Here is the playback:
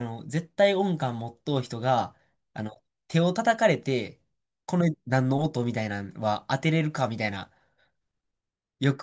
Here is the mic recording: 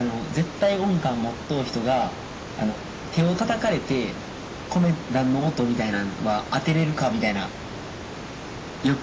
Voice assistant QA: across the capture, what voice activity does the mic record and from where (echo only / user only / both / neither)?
echo only